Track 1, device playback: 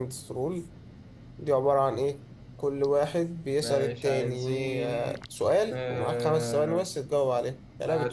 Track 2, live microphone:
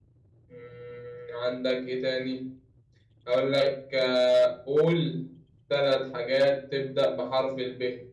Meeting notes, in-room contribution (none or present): present